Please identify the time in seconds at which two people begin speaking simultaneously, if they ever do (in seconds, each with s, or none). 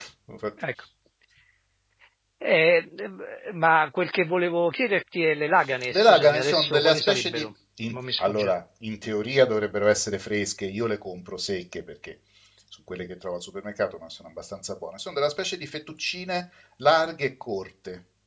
5.9 s